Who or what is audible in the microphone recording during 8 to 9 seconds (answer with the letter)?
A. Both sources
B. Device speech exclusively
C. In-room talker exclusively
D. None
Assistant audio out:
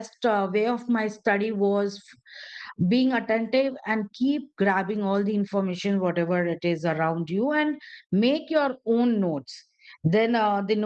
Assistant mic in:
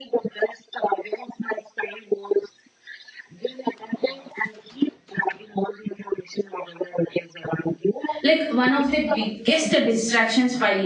A